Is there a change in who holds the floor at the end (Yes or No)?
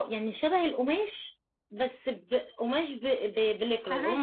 No